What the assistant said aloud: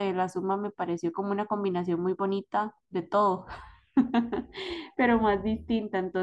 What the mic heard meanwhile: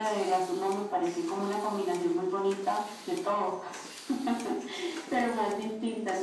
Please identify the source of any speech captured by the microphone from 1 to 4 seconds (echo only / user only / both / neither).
echo only